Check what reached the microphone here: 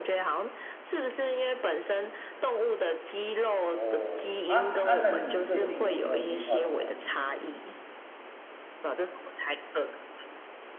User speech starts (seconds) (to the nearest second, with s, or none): 4 s